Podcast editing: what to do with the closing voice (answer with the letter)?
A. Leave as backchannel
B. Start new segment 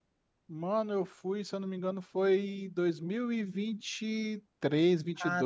B